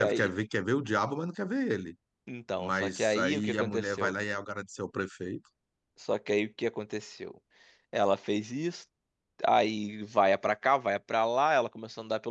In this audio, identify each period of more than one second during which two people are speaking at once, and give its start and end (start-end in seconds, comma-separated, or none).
2.6-4.1